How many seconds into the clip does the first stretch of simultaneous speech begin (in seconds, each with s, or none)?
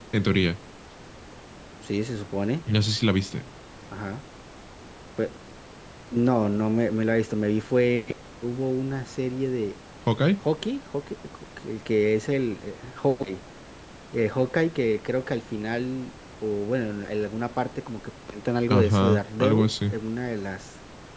18.7 s